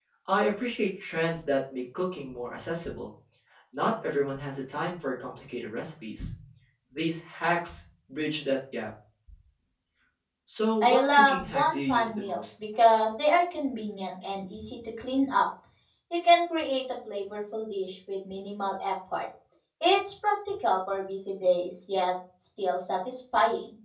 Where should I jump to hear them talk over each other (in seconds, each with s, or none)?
10.8 s